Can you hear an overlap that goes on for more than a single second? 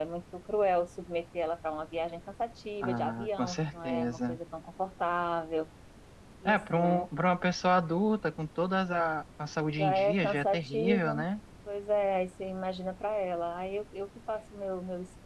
Yes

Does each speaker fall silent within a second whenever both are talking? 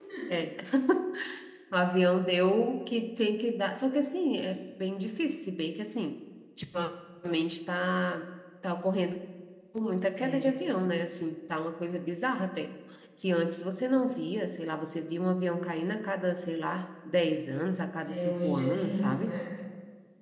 No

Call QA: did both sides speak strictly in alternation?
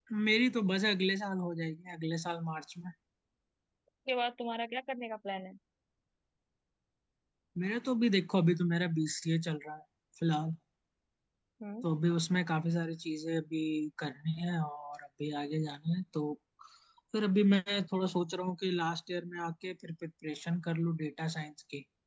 Yes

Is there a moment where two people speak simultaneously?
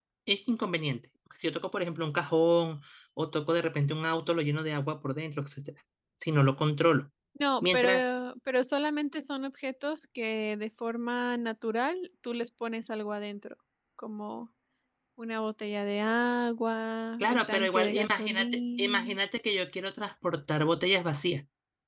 Yes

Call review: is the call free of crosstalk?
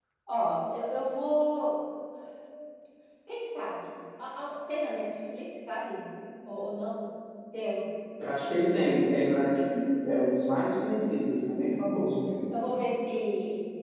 Yes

